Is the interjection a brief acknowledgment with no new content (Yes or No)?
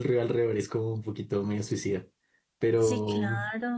No